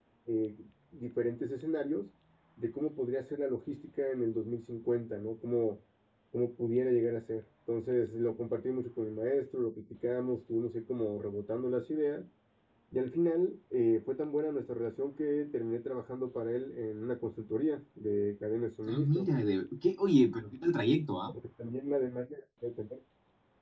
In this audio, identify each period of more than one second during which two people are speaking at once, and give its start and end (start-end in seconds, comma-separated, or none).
none